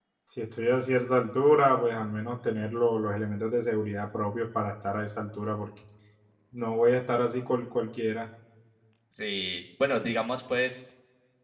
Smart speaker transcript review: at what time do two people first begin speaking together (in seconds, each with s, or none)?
none